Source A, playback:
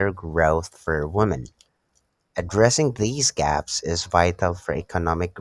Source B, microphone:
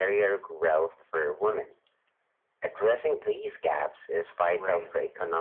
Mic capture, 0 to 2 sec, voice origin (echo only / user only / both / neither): echo only